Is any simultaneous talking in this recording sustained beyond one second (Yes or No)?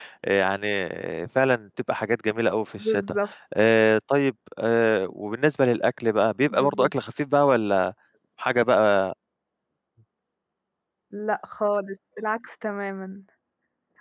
No